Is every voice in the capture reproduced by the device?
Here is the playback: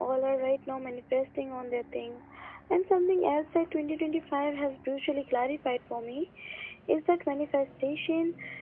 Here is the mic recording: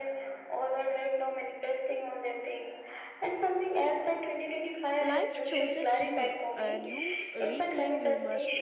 No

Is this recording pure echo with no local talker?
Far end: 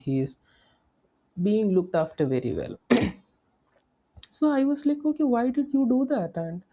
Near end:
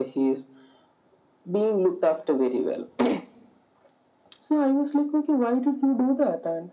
Yes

